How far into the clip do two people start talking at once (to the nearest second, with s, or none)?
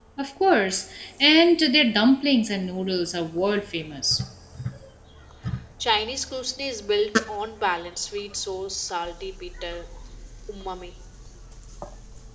none